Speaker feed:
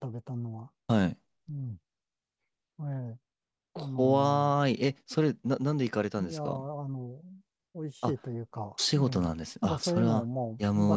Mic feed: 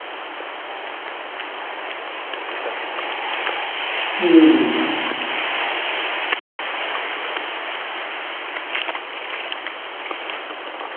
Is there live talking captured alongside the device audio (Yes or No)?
Yes